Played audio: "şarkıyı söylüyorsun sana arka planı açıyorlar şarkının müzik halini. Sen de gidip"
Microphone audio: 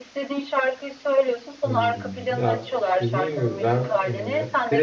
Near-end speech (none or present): present